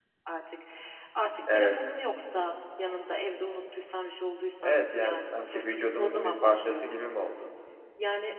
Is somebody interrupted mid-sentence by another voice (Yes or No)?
Yes